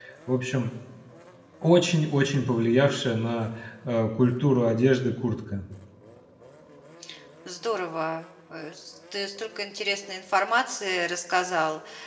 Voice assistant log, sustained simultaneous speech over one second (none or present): none